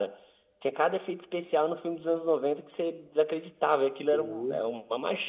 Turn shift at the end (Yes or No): No